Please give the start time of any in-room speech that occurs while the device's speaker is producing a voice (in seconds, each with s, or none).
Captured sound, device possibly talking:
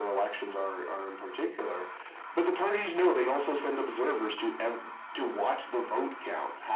none